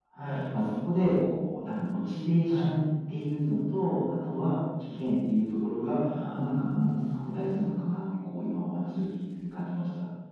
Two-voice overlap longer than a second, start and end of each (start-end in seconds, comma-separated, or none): 6.2-7.7